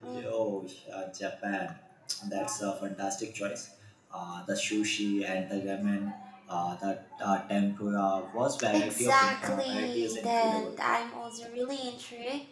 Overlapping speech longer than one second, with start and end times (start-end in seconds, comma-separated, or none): 8.7-10.8